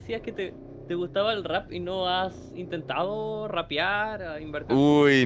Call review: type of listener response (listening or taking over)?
taking over